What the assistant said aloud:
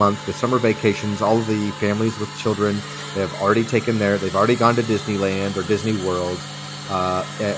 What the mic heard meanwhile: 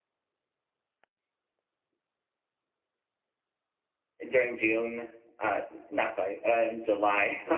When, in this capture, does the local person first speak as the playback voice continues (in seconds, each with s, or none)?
4.3 s